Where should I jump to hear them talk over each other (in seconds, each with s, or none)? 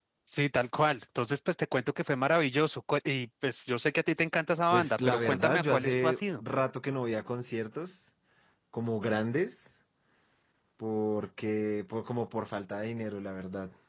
4.7 s